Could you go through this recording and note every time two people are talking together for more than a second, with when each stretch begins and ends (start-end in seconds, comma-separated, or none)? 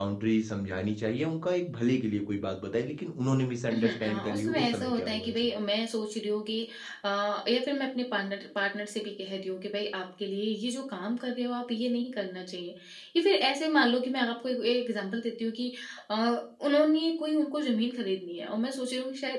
3.7-5.4